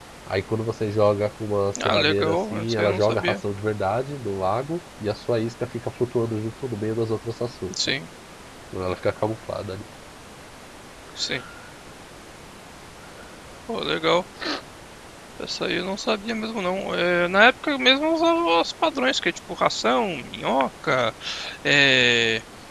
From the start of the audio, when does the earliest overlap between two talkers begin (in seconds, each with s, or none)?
1.8 s